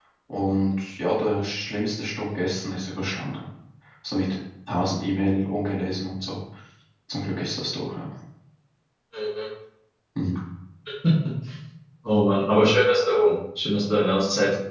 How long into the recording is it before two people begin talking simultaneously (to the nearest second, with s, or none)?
none